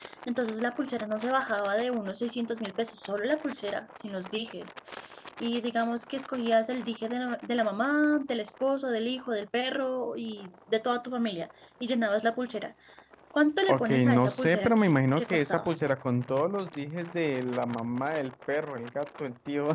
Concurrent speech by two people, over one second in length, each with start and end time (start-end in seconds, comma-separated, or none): 13.7-15.7